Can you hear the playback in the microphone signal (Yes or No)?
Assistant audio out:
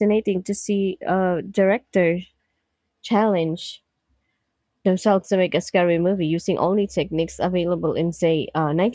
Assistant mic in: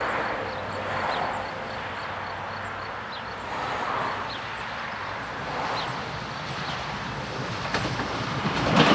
No